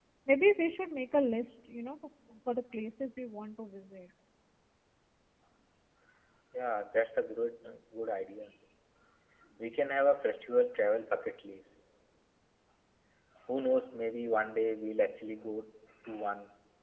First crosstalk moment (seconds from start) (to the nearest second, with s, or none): none